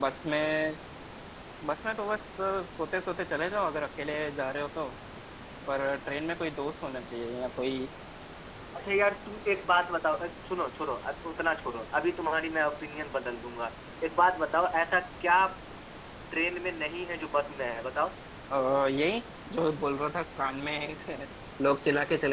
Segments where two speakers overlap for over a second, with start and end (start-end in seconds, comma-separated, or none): none